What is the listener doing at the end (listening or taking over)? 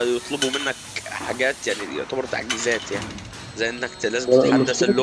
listening